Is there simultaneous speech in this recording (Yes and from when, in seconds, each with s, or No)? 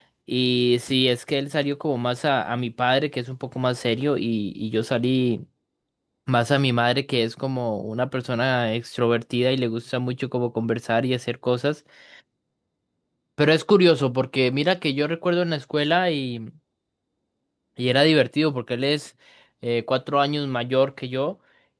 No